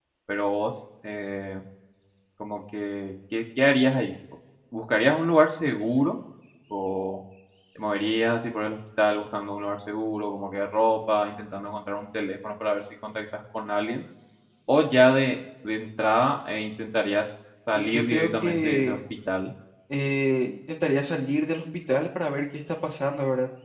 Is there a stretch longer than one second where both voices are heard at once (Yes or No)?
Yes